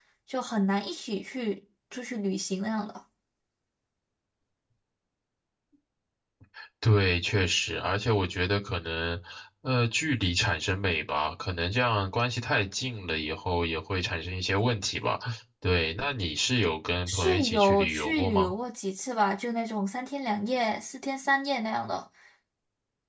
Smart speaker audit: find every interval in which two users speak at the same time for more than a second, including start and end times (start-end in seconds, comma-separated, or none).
17.1-18.5